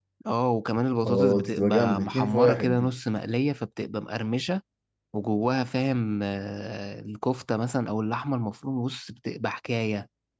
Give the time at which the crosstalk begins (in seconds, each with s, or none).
1.1 s